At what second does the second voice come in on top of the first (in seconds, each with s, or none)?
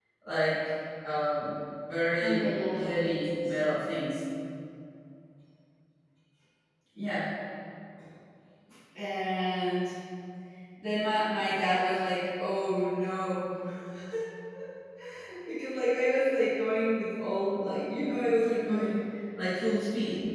2.2 s